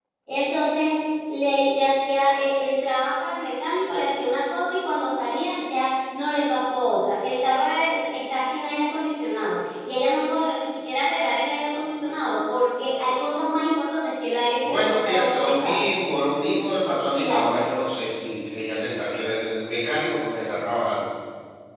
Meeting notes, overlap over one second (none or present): present